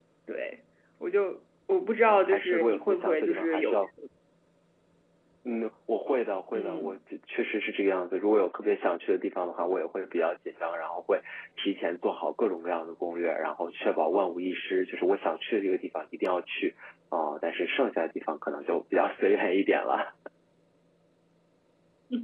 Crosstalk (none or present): present